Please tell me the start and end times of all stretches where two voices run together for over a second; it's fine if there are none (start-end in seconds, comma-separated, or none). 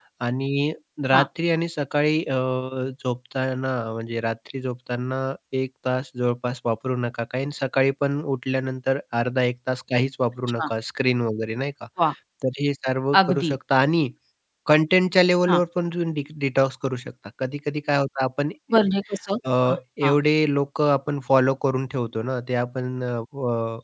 none